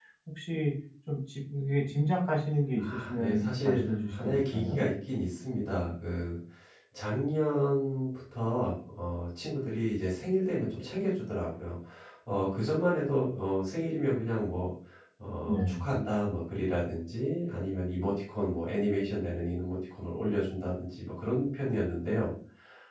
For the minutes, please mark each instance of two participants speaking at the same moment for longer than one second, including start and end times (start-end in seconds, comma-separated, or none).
2.8-4.8